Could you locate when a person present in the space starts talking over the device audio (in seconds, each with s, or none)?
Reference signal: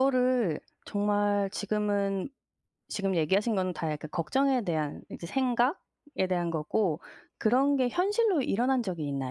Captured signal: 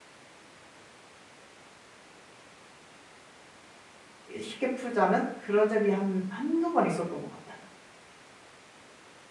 4.3 s